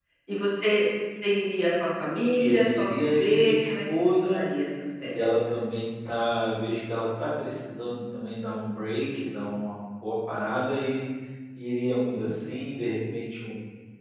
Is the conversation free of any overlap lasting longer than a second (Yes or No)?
No